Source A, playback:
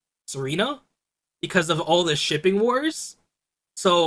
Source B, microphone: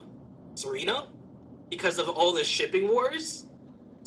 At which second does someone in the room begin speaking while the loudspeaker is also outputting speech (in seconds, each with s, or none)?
none